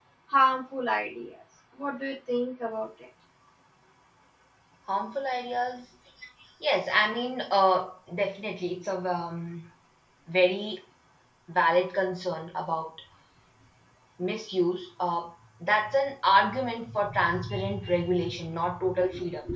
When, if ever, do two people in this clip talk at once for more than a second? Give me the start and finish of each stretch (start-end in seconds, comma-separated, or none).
none